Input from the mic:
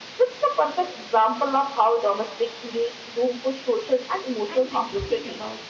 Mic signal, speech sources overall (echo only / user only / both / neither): both